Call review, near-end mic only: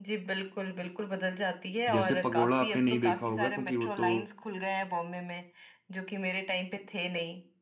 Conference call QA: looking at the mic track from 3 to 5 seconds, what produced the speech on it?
both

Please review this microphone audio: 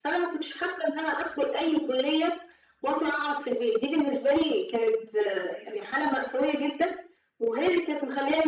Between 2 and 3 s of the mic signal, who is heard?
echo only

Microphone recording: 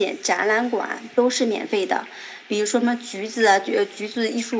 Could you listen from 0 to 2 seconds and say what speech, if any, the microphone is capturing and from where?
echo only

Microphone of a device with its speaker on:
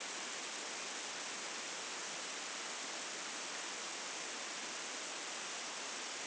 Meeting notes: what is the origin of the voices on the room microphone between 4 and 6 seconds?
neither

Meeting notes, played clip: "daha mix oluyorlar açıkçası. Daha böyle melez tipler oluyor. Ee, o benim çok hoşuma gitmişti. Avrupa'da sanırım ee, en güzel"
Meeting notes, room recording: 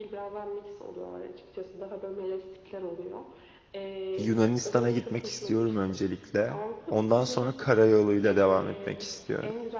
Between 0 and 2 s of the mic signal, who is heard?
echo only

